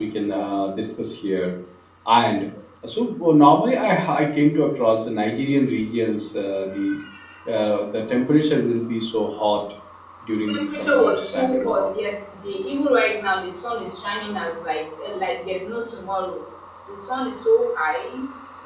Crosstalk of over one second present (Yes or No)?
Yes